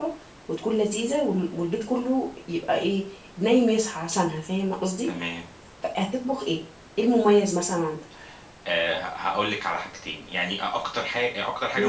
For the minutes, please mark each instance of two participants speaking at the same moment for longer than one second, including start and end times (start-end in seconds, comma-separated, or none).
none